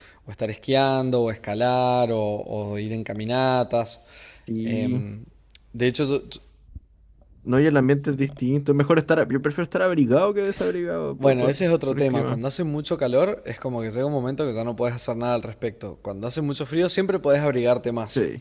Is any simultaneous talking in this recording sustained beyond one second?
Yes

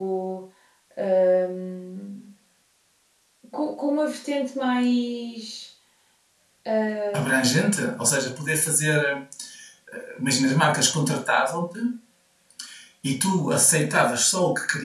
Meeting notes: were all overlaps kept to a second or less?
Yes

